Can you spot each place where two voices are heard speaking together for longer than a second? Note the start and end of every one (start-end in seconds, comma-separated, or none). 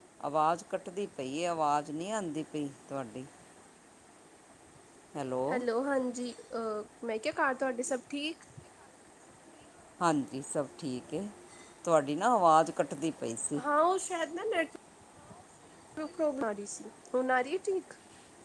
none